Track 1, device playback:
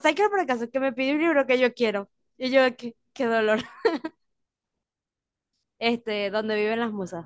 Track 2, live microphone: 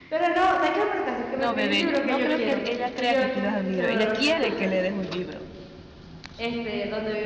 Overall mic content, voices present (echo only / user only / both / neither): both